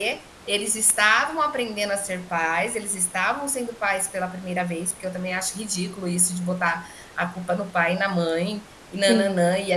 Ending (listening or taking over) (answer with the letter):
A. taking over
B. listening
B